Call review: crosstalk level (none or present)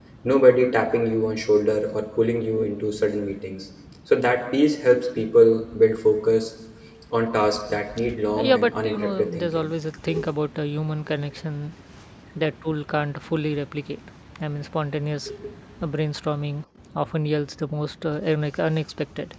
present